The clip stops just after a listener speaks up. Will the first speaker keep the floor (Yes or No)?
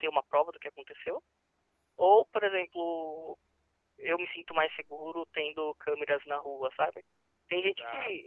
Yes